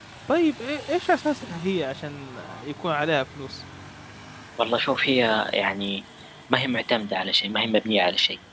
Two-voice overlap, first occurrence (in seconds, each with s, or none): none